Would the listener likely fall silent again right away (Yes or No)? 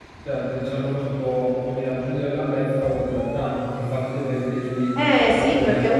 No